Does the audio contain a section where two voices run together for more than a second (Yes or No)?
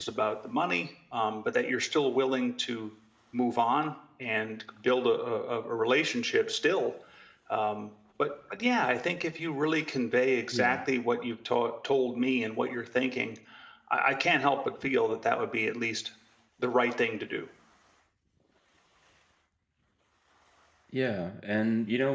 No